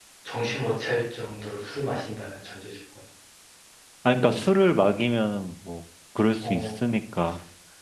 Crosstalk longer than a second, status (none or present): none